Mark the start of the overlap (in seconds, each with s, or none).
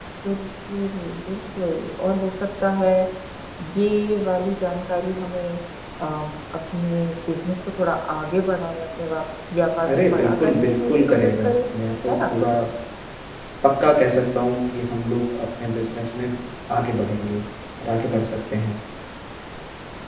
9.9 s